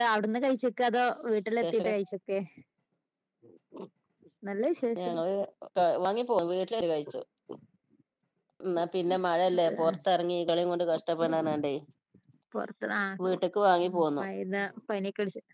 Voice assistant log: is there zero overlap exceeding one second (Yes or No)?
Yes